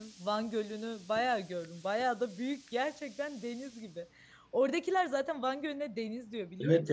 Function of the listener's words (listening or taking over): taking over